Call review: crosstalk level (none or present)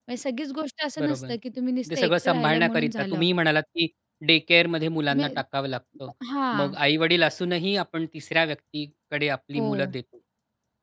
present